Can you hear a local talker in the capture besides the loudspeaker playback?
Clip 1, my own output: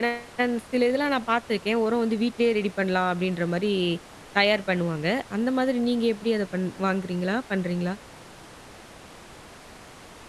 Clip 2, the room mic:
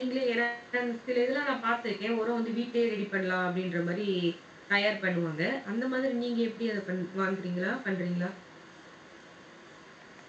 No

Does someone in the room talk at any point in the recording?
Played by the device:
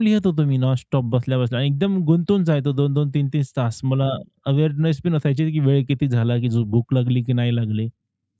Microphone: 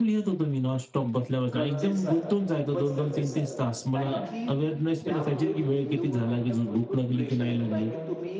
Yes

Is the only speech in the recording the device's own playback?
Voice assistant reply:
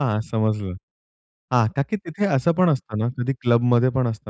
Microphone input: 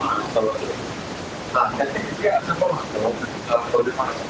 Yes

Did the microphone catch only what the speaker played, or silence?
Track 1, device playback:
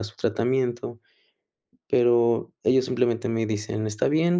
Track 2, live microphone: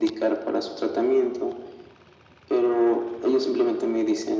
Yes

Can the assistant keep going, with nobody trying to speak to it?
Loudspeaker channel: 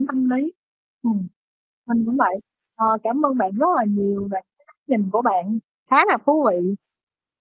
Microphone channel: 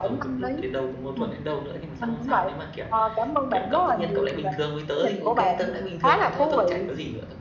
No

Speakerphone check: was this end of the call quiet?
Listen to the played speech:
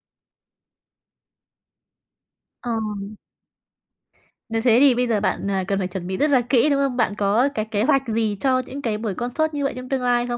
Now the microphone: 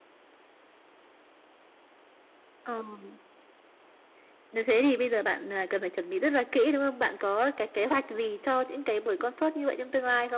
Yes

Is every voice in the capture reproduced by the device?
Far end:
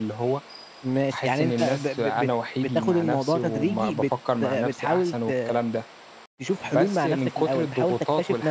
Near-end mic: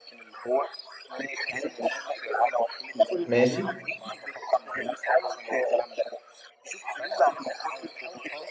No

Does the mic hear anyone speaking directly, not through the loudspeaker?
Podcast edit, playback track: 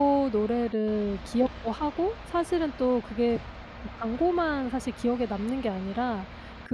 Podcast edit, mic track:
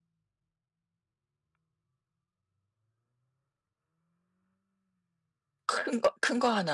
Yes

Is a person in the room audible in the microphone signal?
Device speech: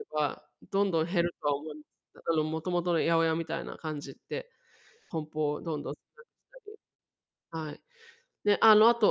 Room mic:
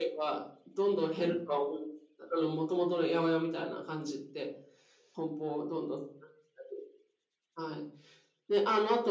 No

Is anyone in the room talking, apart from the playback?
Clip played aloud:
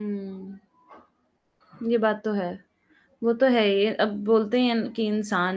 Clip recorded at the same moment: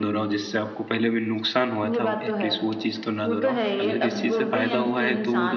Yes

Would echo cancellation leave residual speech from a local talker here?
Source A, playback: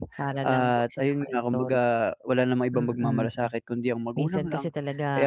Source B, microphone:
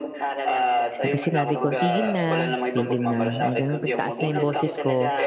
Yes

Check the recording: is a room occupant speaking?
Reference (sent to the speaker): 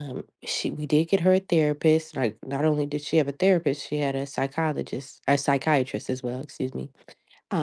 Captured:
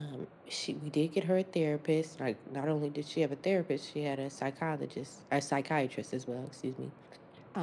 No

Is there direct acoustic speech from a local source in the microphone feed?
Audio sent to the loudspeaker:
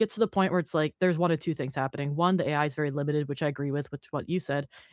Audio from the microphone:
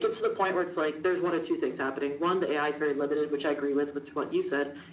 No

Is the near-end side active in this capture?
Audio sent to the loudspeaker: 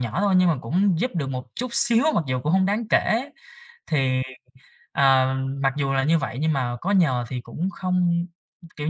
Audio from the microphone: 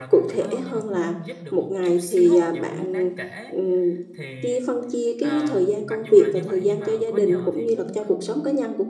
Yes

